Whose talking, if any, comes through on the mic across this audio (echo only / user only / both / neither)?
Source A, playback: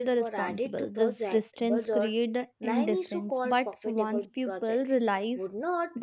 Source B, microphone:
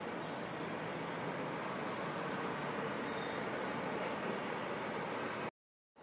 neither